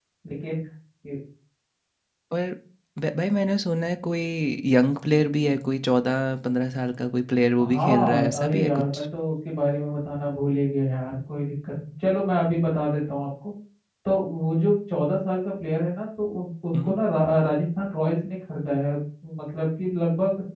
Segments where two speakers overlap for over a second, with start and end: 7.7-9.0

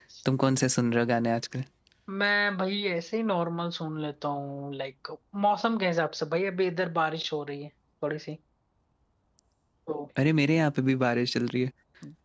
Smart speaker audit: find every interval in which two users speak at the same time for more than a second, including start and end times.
none

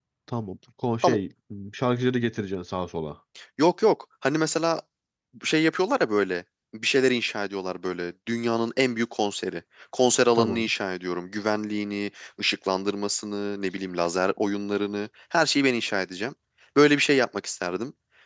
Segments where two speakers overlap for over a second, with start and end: none

